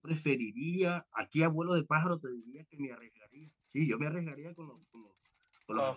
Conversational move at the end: taking over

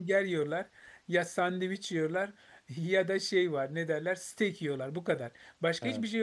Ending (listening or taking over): listening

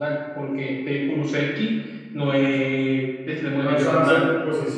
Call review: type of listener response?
taking over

